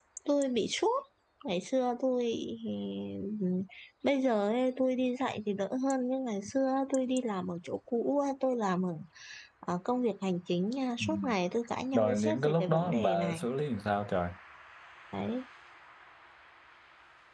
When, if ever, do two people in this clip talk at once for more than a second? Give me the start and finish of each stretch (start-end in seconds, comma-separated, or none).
11.9-13.4